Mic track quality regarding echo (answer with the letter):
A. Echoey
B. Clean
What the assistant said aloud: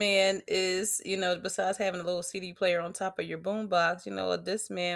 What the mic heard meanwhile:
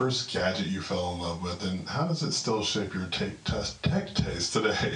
B